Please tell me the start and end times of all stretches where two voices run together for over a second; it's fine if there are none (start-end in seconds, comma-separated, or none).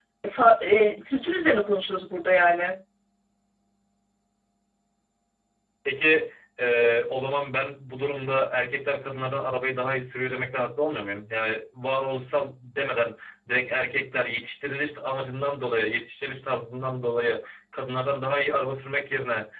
none